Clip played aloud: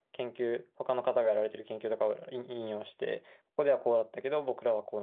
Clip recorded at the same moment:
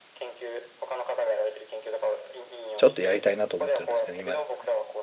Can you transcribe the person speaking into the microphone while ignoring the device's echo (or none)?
ちょっとやりたいなと思ってるんですけど、今でもね。